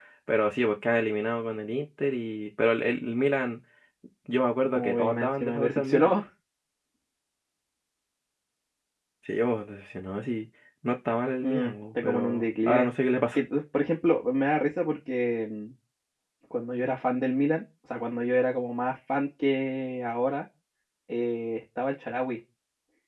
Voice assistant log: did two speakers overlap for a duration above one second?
Yes, from 4.8 s

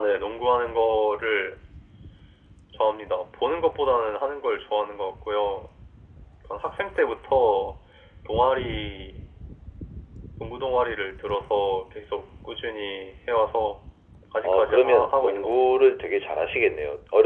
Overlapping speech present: Yes, from 14.4 s

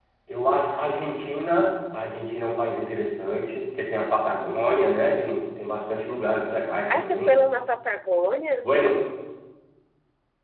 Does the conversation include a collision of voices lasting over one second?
No

